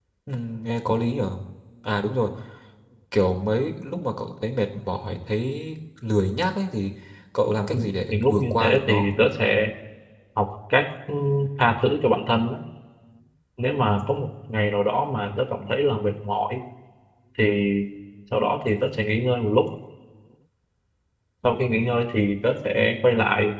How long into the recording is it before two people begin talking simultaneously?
8 s

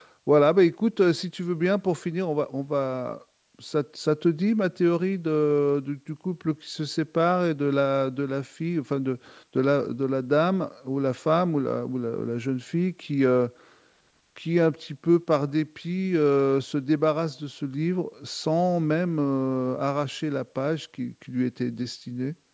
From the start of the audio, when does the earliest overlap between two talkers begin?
none

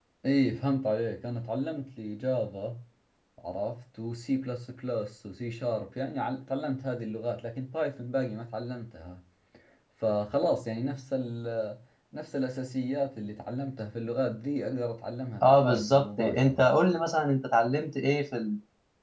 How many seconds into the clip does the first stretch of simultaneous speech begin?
15 s

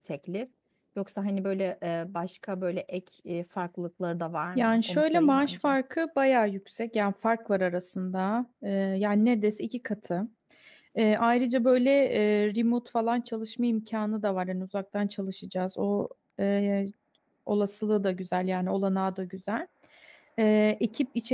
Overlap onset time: 5 s

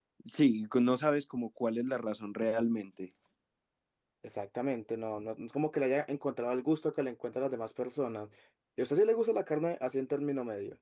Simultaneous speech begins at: none

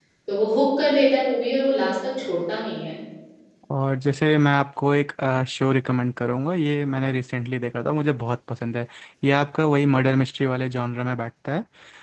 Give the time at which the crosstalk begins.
none

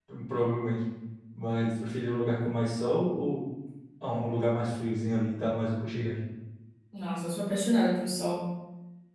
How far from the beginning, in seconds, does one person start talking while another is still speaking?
none

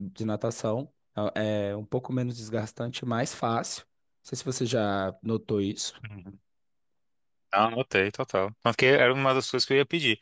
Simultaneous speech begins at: none

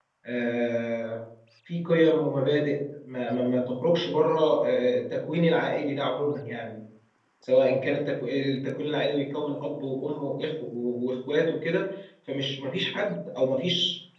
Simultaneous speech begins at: none

